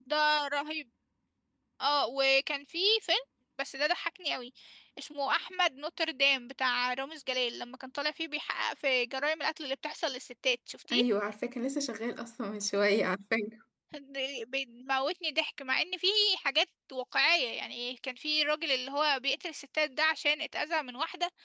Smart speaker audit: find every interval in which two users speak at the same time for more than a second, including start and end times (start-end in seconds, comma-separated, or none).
none